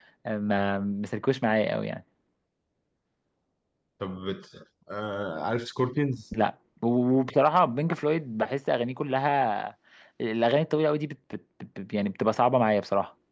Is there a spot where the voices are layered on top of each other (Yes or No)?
No